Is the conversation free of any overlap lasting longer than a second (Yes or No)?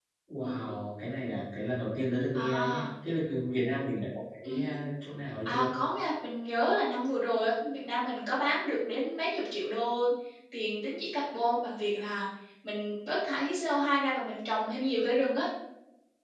Yes